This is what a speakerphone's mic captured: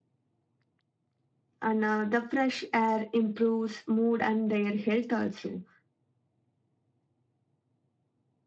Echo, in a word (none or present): none